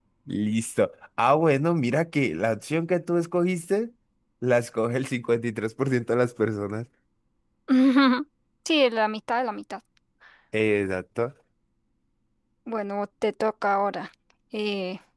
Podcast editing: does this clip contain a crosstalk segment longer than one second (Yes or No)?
No